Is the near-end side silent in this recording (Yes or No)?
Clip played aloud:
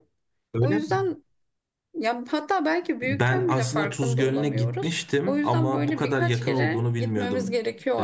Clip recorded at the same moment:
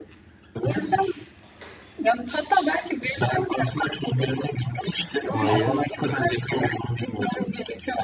No